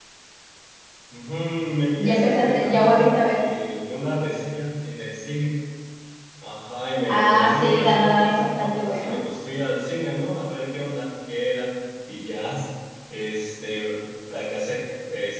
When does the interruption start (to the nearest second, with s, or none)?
2 s